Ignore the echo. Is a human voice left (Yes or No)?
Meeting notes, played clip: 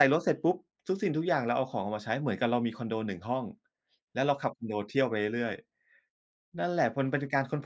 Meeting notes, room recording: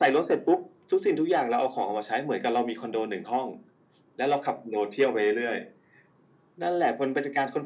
No